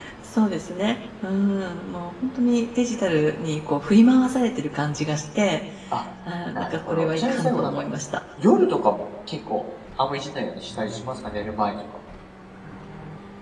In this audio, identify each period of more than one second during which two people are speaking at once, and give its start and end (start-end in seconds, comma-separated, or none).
6.6-7.8